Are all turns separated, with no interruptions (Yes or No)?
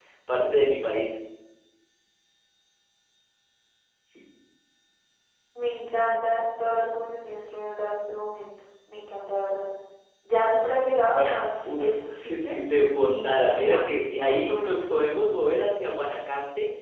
No